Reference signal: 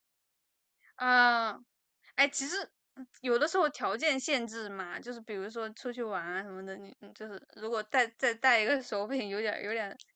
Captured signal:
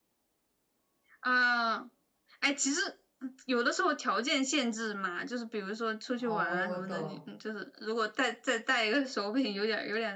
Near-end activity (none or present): present